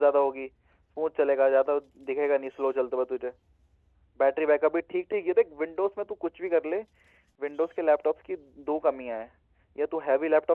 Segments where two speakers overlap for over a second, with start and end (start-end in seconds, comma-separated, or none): none